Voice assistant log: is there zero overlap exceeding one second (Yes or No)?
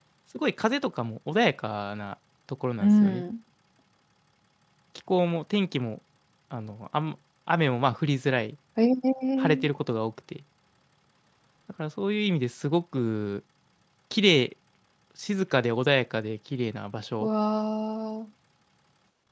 Yes